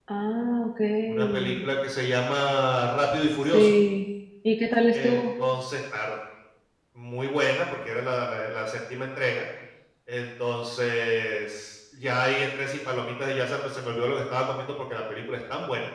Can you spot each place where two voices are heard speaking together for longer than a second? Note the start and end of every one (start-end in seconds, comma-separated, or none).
none